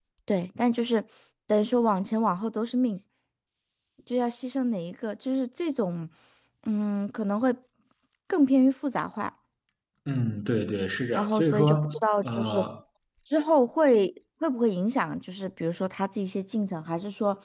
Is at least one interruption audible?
Yes, from 11.2 s

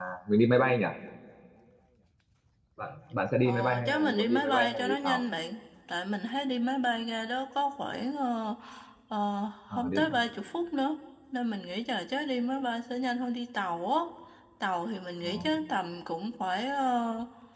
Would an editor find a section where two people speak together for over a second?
Yes, from 3.4 s

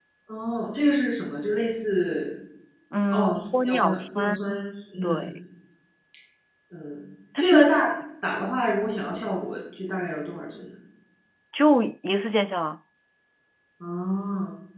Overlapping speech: Yes, from 3.1 s

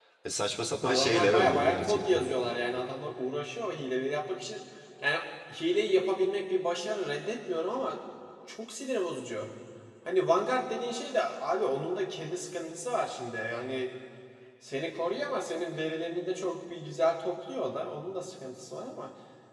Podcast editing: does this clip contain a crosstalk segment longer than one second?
Yes, from 0.8 s

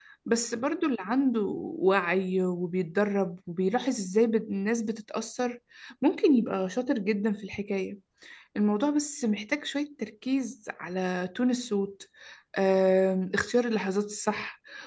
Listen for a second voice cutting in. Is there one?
No

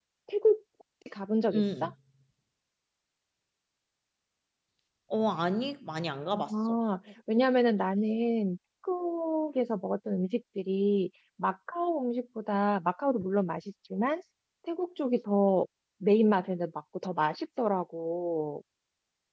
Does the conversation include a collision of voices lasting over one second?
No

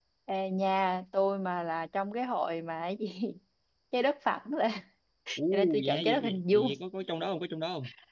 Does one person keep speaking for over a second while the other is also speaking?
Yes, from 5.4 s

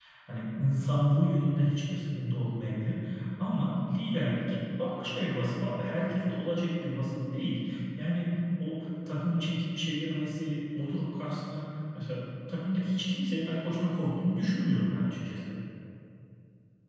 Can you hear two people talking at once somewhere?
No

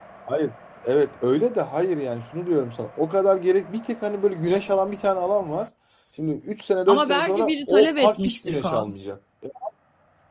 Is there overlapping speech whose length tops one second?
Yes, from 6.9 s

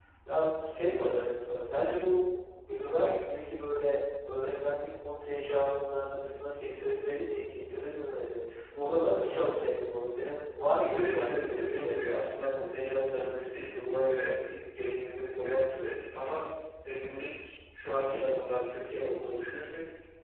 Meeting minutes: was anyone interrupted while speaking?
Yes, from 10.8 s

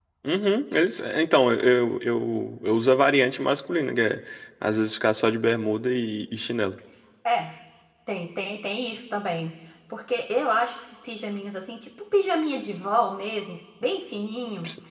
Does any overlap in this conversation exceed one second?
No

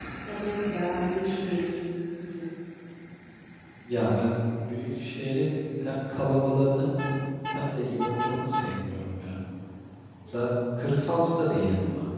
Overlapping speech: No

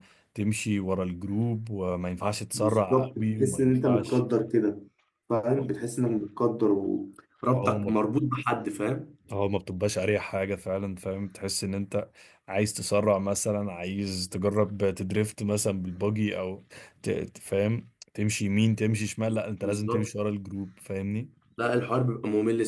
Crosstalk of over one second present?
Yes, from 2.5 s

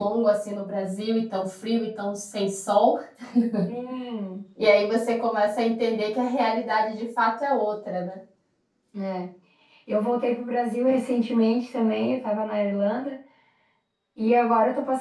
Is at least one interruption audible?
No

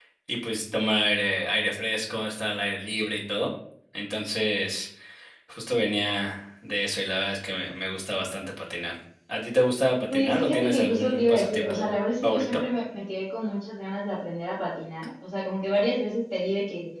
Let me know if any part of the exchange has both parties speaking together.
Yes, from 10.1 s

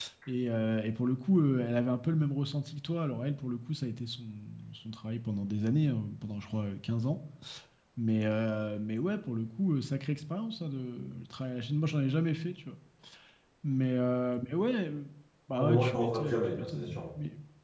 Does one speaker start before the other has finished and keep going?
Yes, from 15.6 s

